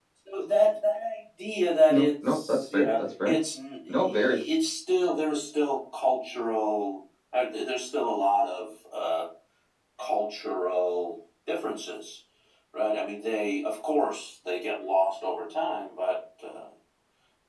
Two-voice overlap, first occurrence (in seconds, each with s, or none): 1.9 s